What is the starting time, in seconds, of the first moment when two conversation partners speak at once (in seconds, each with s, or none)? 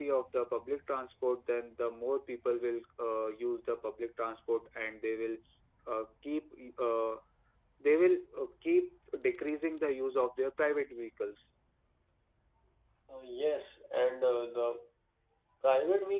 none